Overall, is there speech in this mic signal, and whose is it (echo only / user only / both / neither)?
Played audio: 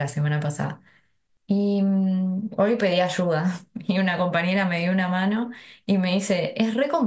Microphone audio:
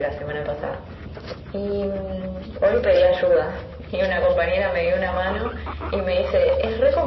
echo only